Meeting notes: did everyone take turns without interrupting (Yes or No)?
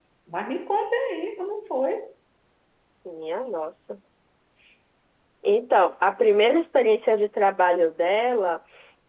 Yes